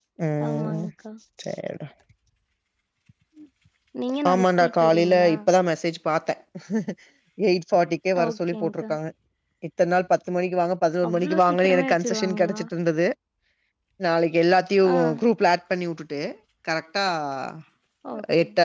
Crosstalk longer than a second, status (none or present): present